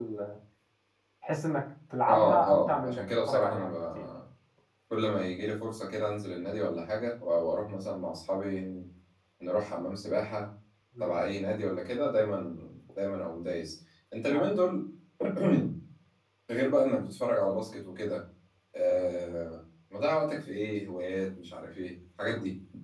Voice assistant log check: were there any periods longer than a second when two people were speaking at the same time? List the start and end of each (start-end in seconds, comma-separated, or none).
2.0-4.0